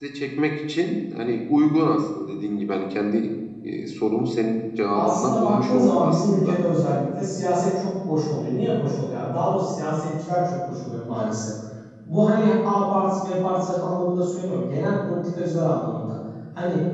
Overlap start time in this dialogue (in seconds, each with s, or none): 4.9 s